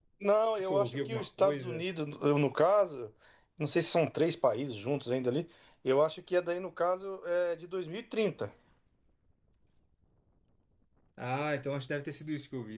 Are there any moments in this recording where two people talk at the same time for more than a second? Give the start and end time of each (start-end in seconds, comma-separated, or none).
0.6-1.8